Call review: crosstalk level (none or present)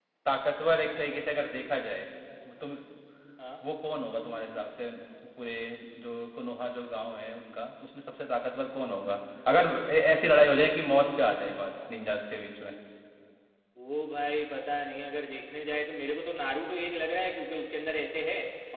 none